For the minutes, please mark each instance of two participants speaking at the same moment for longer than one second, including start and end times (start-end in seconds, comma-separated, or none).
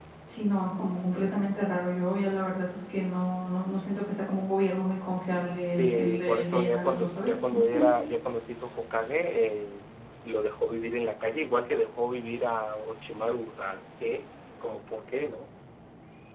5.8-7.3